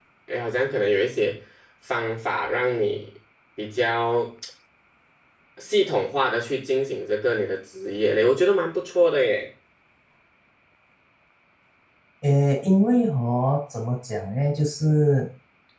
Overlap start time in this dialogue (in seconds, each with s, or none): none